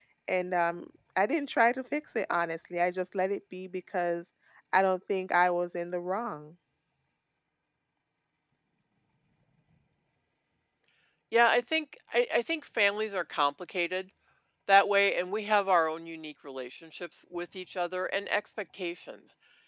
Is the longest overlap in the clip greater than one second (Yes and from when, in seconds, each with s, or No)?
No